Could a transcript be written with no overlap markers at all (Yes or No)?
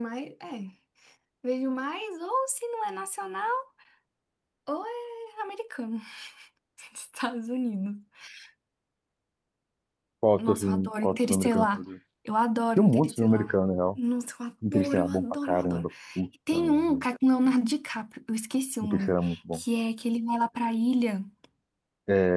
No